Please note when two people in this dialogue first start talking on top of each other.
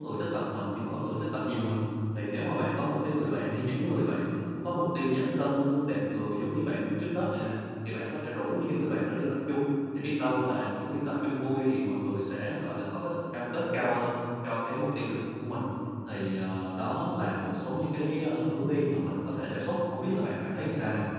none

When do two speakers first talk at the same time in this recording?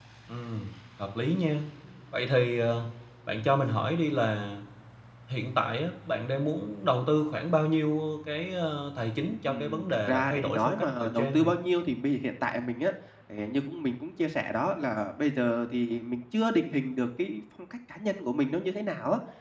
9 s

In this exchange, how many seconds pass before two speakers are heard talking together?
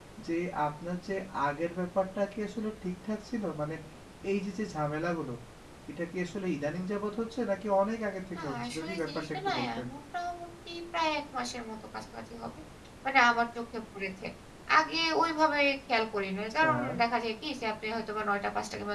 8 s

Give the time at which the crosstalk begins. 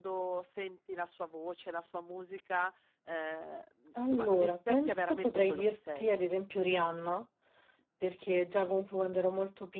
4 s

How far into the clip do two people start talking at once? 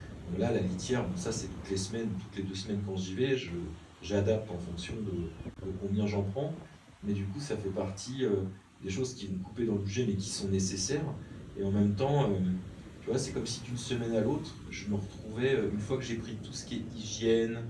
none

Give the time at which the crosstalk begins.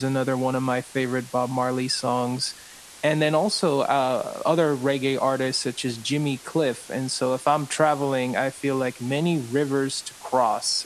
none

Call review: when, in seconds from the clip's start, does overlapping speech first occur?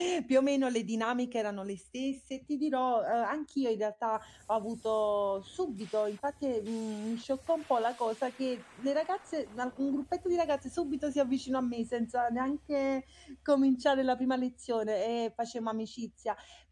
none

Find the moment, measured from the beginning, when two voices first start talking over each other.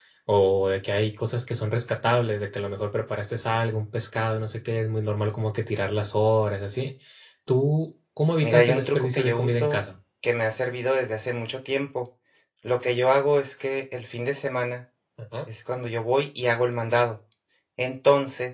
8 s

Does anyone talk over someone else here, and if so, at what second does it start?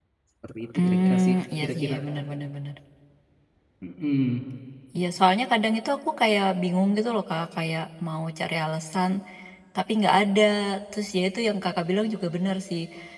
1 s

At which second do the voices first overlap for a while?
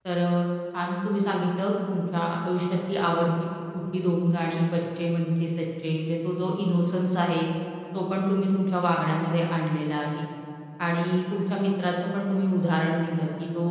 none

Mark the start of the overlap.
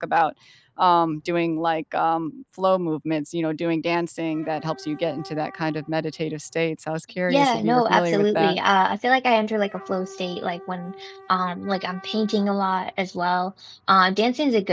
7 s

